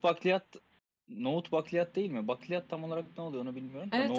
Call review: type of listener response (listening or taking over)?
taking over